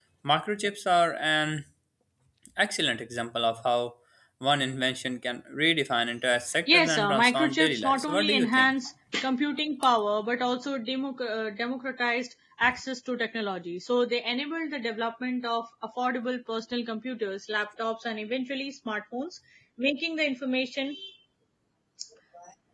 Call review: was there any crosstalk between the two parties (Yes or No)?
Yes